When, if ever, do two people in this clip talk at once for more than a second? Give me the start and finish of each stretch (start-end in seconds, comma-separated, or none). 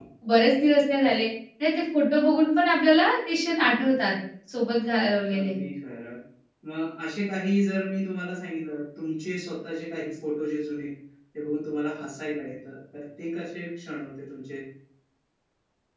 none